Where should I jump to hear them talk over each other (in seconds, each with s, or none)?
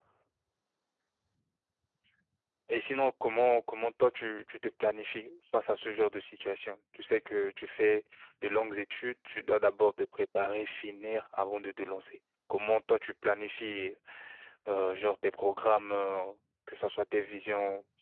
none